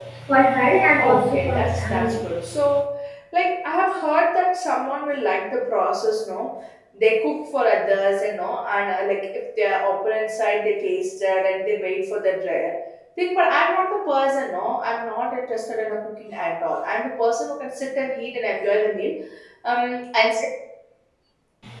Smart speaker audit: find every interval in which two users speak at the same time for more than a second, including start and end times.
0.9-2.1

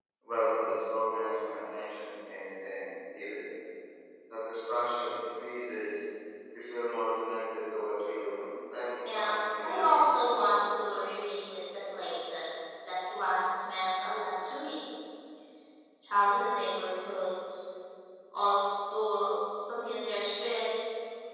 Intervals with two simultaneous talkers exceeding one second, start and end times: 9.2-10.5

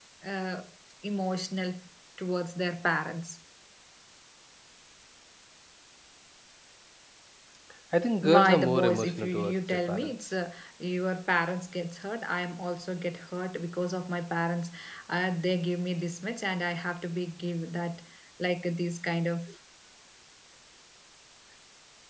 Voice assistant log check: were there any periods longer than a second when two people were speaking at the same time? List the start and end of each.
8.2-10.1

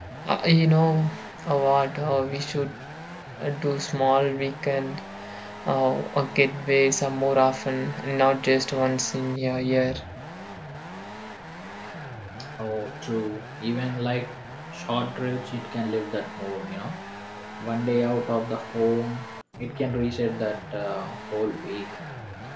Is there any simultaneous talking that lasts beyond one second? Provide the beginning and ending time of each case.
none

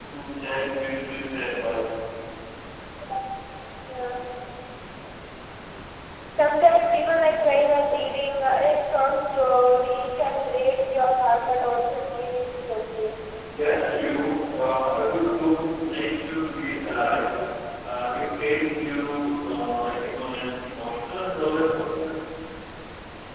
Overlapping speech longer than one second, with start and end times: none

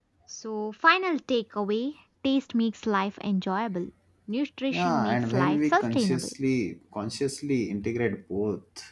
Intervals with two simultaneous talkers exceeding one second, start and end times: 4.7-6.3

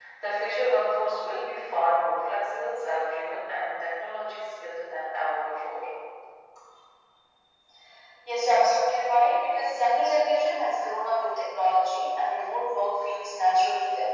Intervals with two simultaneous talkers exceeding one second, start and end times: none

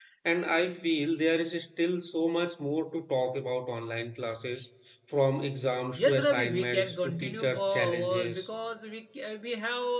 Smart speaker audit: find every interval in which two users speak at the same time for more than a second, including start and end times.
6.0-8.5

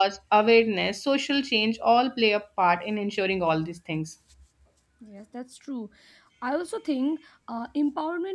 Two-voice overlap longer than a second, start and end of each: none

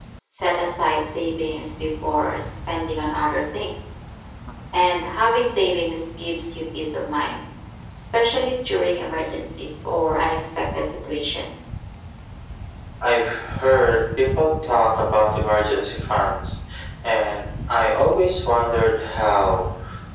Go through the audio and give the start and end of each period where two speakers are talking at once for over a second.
none

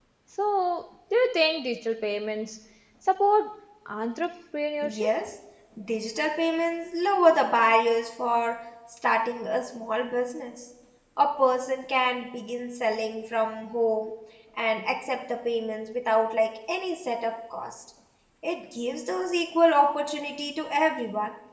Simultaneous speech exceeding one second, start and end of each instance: none

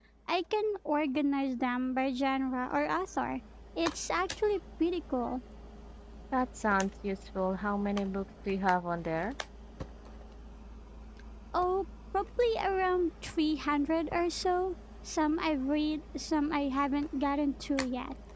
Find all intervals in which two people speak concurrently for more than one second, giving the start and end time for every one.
none

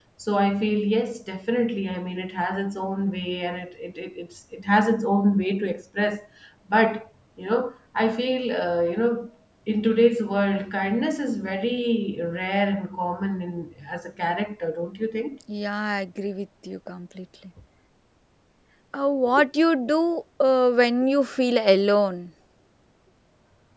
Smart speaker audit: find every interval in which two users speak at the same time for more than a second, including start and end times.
none

